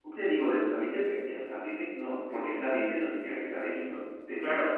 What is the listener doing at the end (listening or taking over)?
taking over